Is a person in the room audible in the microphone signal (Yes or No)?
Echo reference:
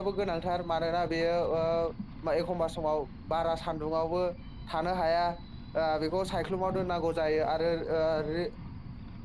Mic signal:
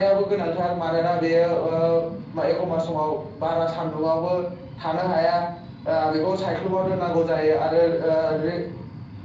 No